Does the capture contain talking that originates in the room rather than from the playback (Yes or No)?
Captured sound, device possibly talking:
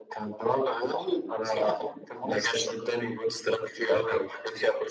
No